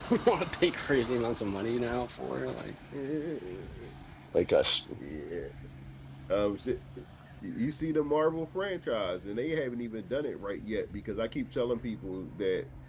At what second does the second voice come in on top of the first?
none

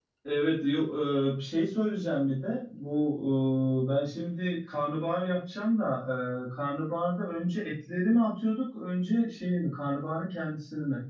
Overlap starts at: none

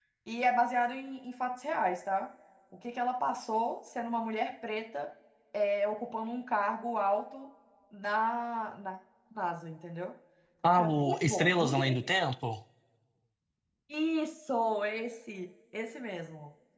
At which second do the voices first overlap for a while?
10.7 s

